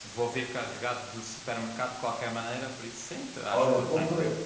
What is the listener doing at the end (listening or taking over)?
taking over